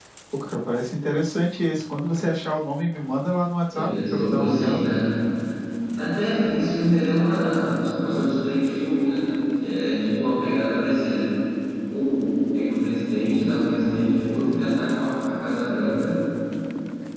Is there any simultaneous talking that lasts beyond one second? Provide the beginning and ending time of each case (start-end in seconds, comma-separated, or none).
3.7-5.0